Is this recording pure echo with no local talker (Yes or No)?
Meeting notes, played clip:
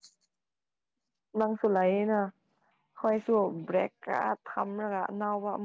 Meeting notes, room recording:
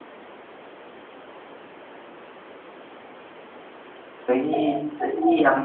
No